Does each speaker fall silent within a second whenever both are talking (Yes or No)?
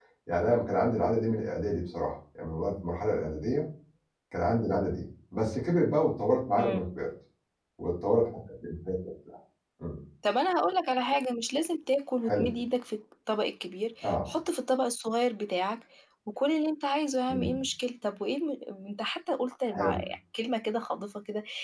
Yes